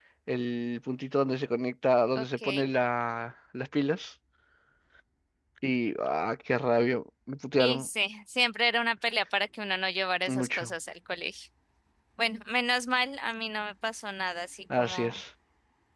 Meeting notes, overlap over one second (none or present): none